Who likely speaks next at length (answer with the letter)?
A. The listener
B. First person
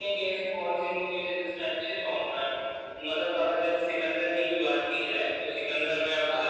B